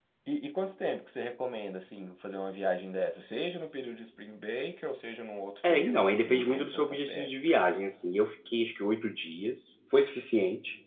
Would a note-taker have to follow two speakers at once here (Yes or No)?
Yes